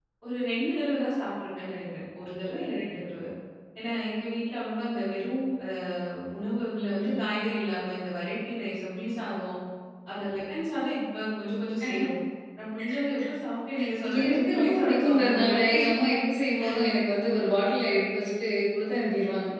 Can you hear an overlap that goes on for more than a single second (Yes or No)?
Yes